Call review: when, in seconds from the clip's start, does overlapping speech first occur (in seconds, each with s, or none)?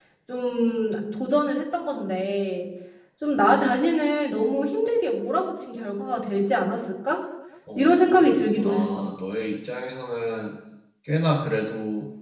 7.8 s